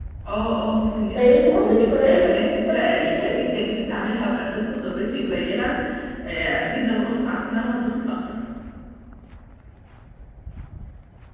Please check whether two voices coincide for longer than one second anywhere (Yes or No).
Yes